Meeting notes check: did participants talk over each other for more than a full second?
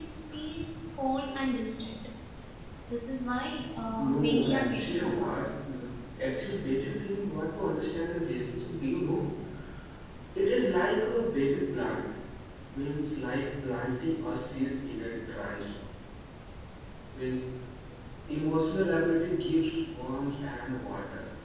Yes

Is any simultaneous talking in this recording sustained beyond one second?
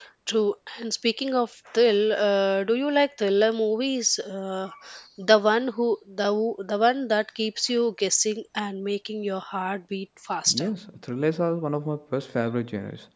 No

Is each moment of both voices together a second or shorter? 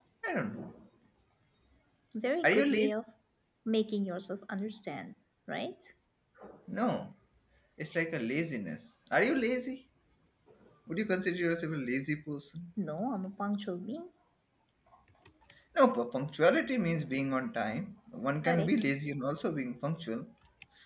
Yes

